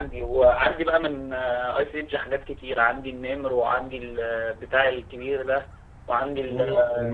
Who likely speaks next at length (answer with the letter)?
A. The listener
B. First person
A